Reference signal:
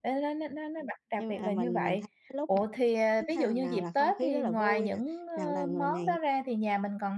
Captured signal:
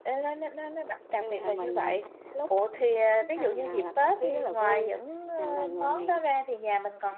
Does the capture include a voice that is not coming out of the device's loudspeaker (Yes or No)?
No